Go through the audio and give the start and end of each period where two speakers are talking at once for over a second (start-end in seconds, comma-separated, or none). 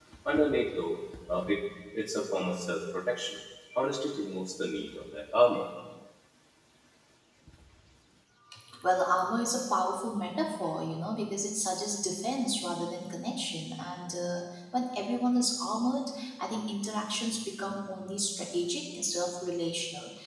none